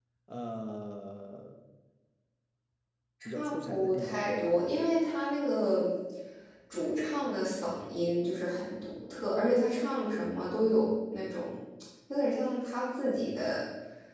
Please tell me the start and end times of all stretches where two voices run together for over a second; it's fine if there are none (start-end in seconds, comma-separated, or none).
3.2-4.6